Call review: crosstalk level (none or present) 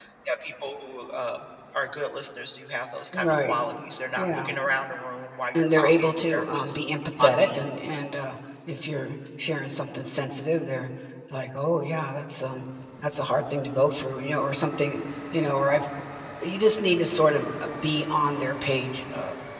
present